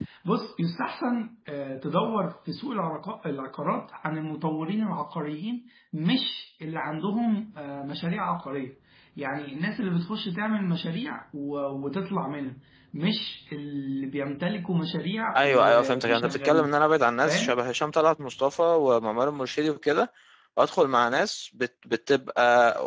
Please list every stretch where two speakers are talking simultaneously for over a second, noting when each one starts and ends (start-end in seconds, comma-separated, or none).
15.4-16.7